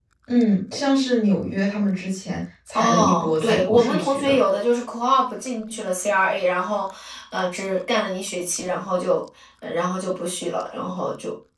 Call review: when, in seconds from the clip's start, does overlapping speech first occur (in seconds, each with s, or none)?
2.7 s